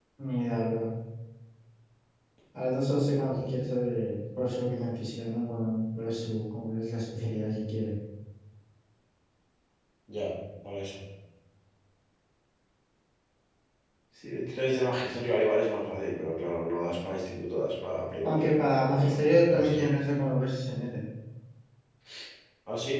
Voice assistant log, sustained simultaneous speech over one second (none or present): present